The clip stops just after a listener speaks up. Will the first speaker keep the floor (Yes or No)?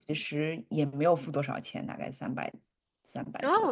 No